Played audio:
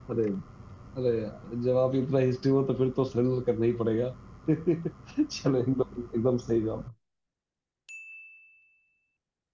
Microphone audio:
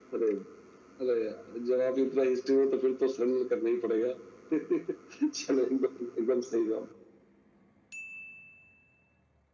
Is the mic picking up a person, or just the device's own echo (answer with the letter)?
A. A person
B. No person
B